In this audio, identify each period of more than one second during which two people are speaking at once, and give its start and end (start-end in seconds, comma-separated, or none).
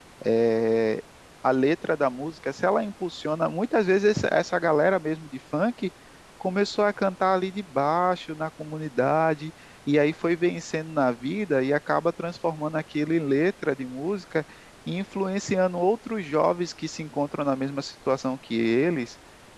none